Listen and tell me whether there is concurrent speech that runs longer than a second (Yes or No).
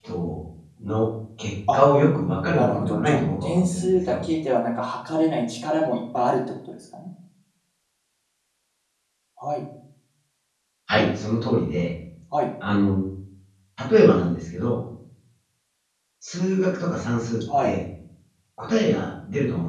Yes